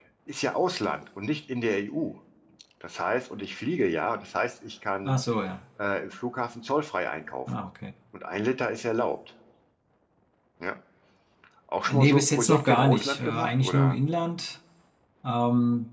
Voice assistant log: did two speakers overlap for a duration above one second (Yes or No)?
Yes